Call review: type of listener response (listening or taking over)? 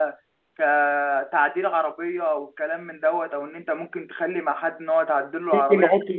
taking over